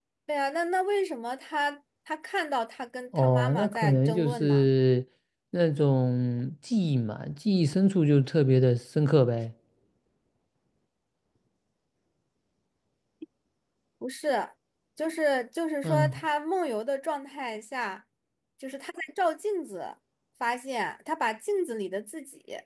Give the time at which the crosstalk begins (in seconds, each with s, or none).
3.2 s